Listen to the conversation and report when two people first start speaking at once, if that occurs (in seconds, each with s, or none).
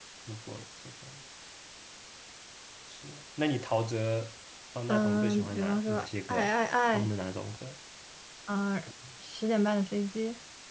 4.9 s